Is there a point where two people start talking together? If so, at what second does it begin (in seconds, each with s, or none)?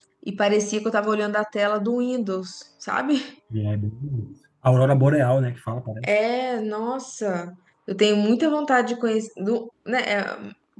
none